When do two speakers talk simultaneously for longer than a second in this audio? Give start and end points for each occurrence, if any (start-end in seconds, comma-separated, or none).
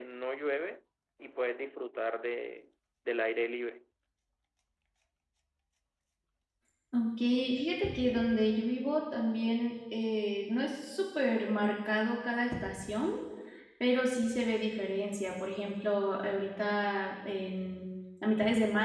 none